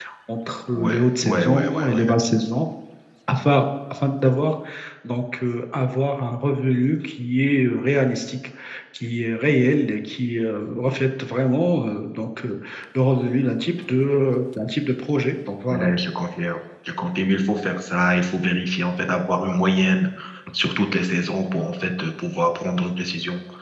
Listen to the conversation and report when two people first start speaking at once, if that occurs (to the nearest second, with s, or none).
1 s